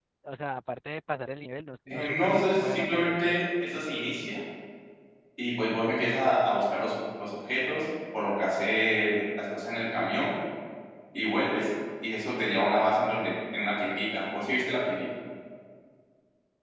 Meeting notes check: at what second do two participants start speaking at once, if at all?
1.9 s

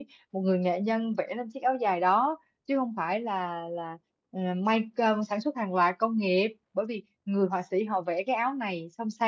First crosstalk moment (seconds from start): none

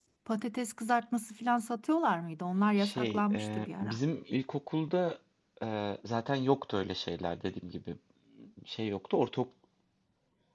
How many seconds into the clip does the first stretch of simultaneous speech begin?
2.8 s

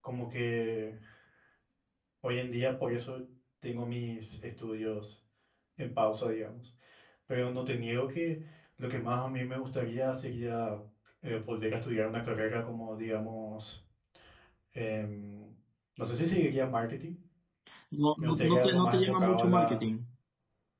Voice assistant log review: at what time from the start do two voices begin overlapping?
18.2 s

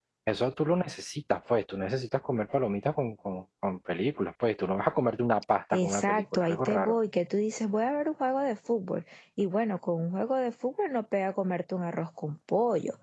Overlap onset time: 5.7 s

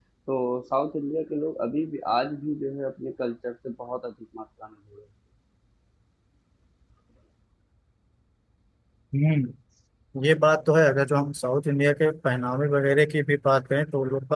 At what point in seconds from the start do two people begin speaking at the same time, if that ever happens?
none

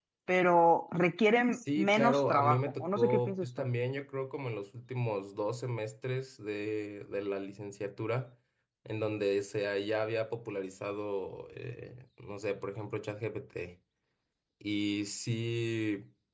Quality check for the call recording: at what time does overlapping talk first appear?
1.5 s

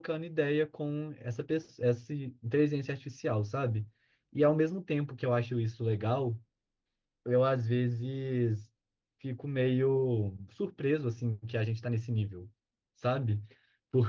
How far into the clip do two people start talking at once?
none

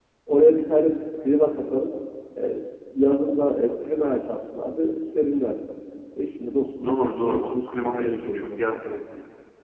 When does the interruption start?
6.8 s

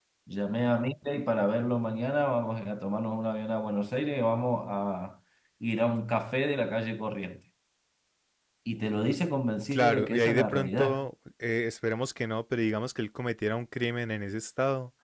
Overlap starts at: 9.7 s

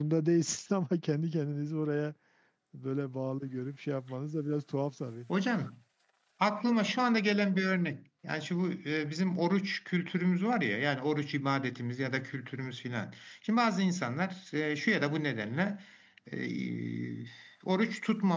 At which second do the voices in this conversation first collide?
none

